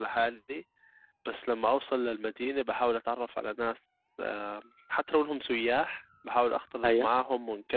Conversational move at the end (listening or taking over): listening